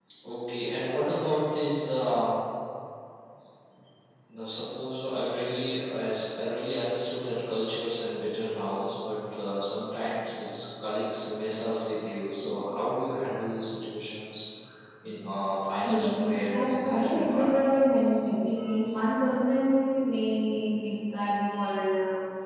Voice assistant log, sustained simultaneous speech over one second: present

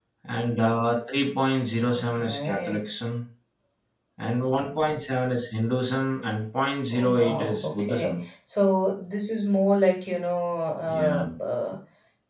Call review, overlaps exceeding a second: present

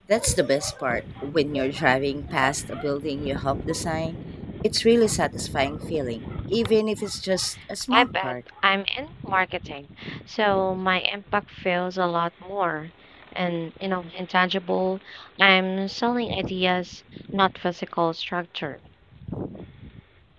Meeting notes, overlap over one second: none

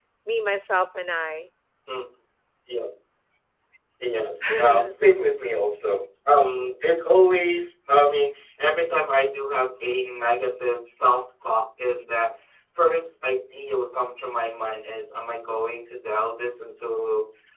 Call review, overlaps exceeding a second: none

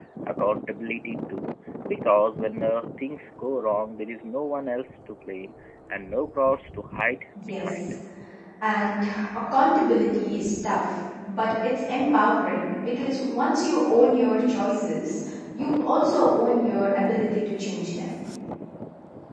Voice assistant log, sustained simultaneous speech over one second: none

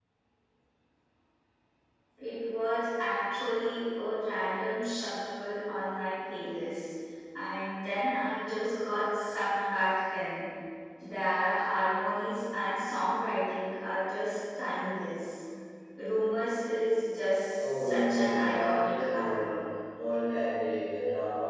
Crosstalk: present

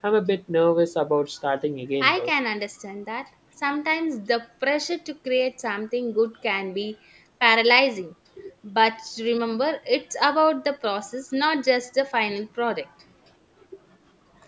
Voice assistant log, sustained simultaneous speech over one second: none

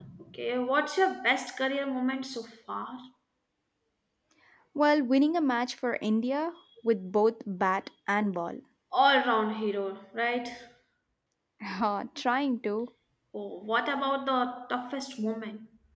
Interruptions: none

